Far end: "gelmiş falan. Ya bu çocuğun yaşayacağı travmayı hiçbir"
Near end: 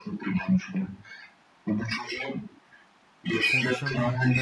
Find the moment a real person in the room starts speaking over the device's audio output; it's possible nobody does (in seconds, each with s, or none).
3.4 s